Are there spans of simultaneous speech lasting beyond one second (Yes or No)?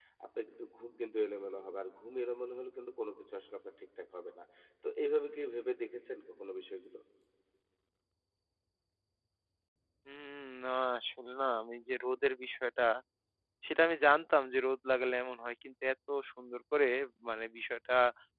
No